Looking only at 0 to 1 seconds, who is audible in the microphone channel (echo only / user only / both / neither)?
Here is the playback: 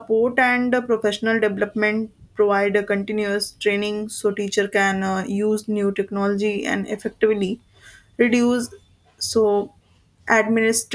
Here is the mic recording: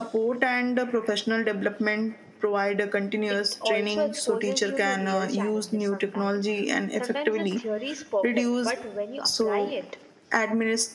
echo only